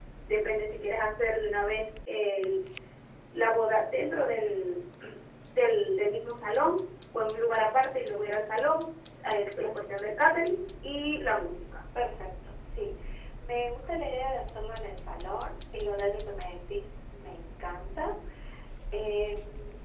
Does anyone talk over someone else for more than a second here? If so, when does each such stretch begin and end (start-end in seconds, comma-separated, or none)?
none